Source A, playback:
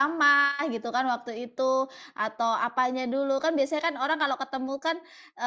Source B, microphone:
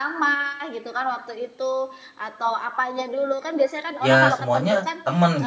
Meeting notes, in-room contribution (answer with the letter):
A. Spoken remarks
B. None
A